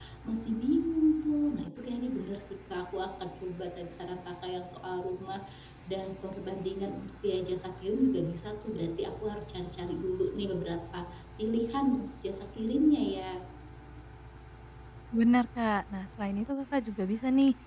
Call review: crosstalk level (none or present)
none